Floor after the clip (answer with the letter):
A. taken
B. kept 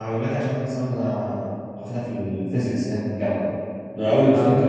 B